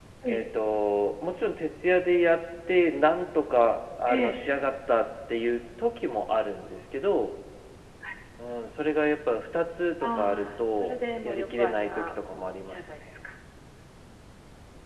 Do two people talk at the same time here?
Yes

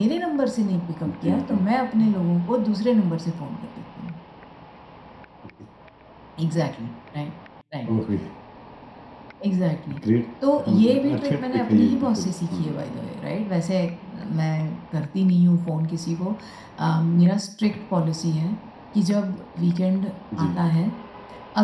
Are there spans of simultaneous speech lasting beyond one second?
Yes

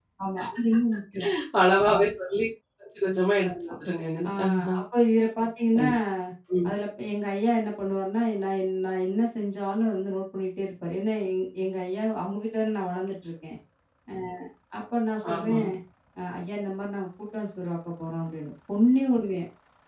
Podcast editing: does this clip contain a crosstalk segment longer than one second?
No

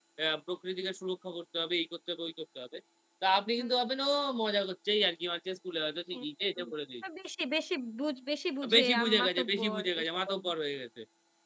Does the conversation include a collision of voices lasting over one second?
Yes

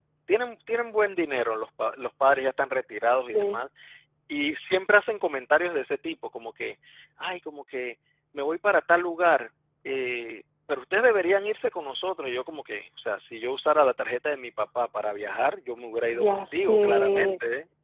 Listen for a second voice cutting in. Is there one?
Yes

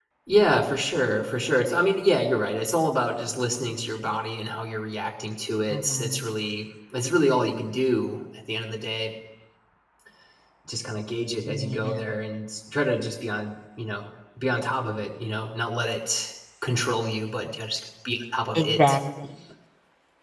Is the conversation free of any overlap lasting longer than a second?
Yes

